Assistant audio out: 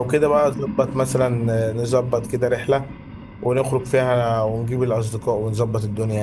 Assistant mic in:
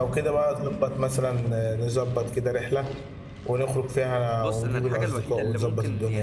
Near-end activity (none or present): present